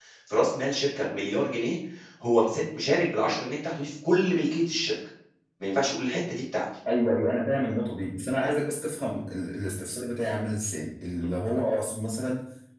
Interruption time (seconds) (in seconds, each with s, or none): none